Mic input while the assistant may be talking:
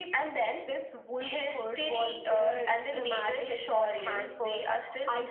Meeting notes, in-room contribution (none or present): none